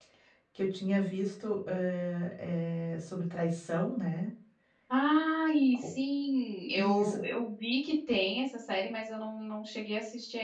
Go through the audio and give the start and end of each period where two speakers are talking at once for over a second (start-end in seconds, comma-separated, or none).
none